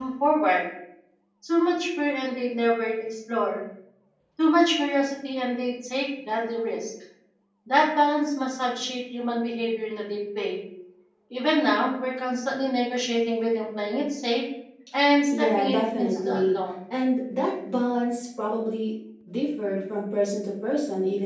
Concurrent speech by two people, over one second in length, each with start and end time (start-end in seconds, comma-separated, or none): 15.3-16.5